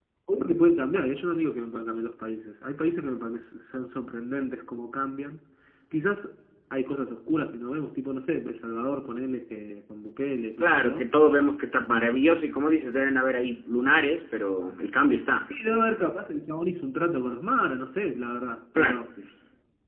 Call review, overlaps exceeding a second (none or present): none